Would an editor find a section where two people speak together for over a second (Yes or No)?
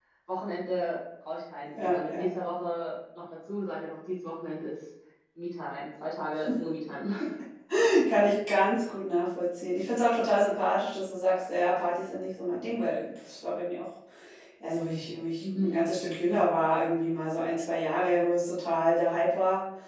No